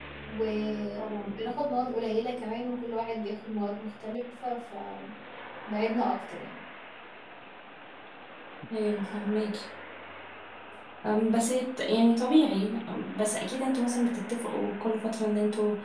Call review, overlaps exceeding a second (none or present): none